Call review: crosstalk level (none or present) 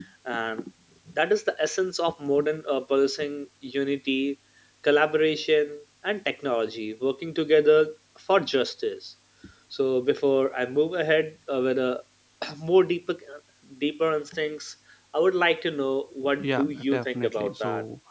present